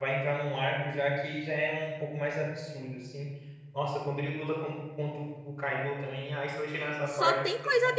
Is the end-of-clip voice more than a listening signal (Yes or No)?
Yes